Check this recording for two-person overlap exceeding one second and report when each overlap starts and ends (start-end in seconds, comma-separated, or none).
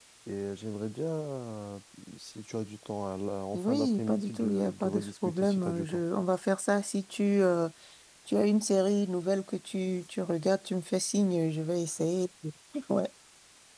3.5-6.0